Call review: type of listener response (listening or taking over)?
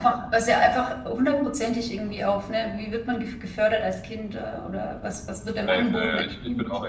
taking over